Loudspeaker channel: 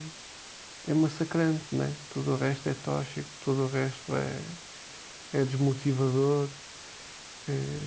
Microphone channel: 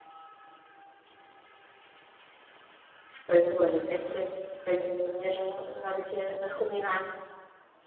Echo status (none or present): none